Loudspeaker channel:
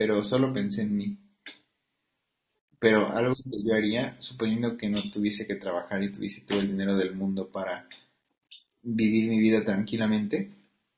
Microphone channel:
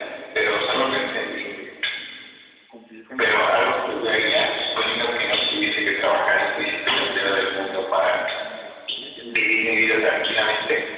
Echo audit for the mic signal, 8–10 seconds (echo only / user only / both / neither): both